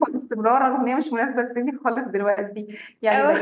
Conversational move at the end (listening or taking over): listening